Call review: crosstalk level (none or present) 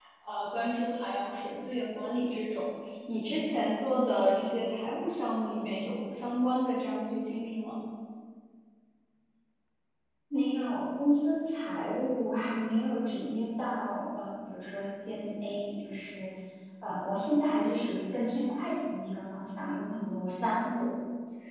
none